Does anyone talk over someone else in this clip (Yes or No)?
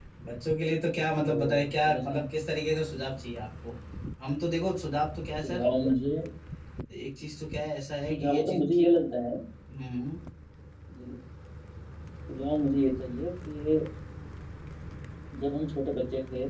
Yes